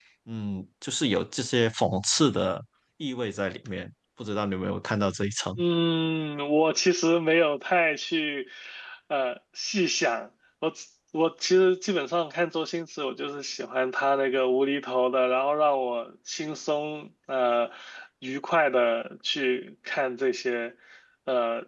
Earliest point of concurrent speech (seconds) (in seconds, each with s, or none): none